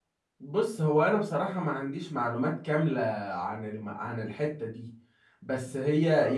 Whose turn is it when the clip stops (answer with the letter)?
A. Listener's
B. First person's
B